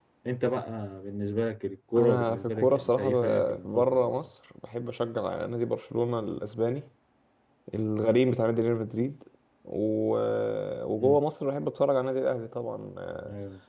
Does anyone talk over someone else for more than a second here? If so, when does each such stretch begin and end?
2.0-4.1

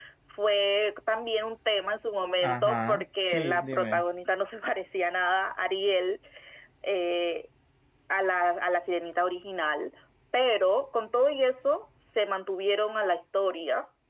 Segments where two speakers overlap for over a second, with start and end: 2.4-4.0

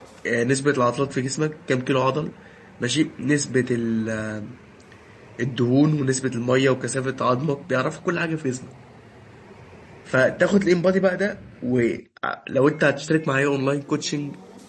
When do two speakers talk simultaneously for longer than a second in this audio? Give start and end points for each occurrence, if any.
none

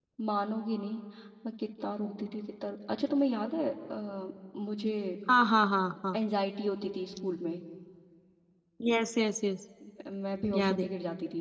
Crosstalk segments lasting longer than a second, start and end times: none

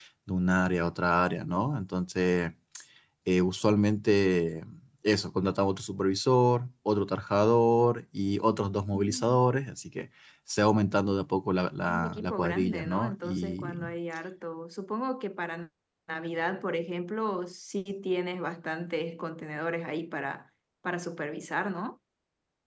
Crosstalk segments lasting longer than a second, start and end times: 11.9-13.8

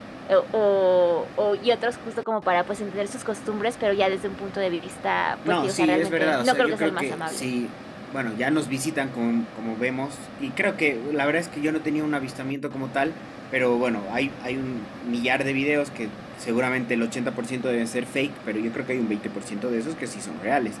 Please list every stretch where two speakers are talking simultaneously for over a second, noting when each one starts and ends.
5.5-7.5

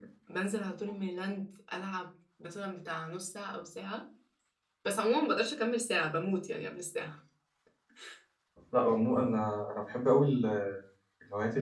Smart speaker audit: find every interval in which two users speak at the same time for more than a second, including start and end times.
none

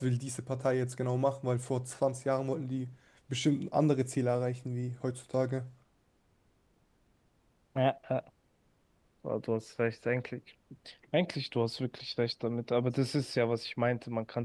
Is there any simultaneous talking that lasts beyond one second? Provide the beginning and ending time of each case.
none

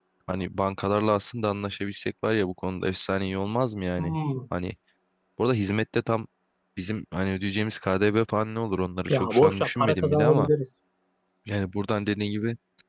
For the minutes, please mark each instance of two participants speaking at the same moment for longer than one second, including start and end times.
9.1-10.5

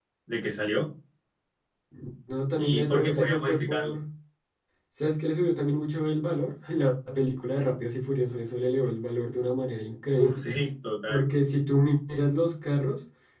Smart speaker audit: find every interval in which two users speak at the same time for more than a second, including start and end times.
2.5-3.9

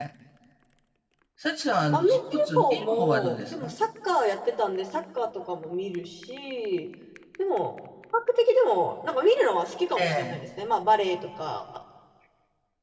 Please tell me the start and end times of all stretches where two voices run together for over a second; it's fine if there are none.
1.9-3.7

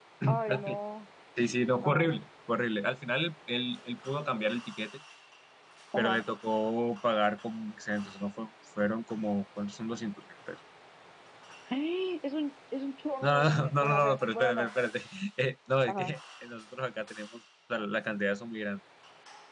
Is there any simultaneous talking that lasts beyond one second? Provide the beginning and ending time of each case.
13.2-14.7

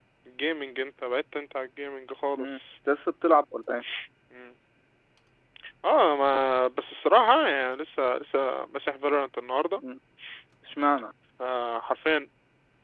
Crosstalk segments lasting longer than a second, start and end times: none

